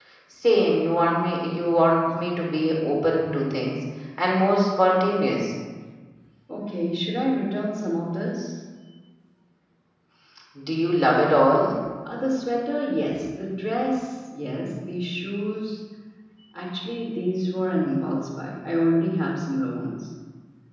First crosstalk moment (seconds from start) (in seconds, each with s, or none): none